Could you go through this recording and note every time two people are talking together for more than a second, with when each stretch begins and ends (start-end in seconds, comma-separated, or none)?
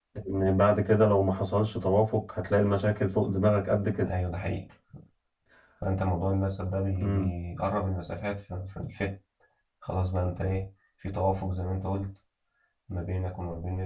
none